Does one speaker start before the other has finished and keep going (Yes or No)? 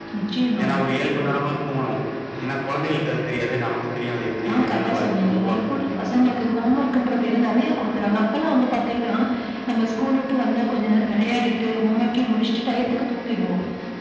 Yes